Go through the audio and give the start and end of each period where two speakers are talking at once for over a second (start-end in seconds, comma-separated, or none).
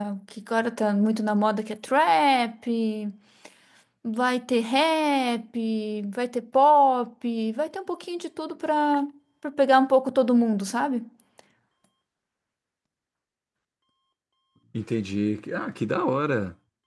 none